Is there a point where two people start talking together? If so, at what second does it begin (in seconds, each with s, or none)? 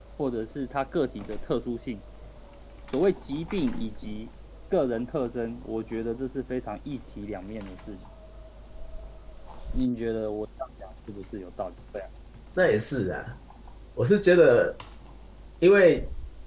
none